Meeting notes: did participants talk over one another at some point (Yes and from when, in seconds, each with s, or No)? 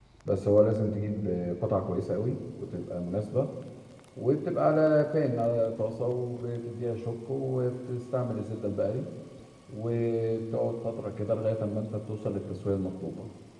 No